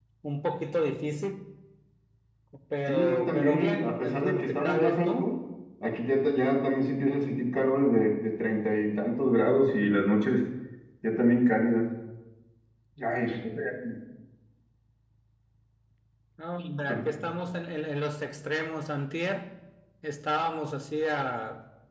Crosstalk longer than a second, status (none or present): present